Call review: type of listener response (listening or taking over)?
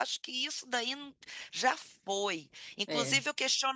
listening